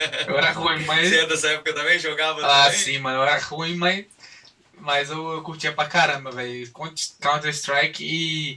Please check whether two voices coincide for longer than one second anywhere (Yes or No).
No